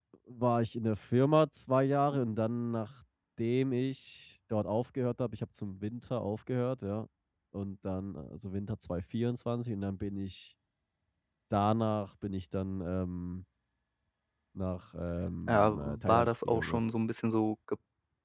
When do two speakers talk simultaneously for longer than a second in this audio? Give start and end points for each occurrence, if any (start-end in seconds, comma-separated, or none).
15.5-16.8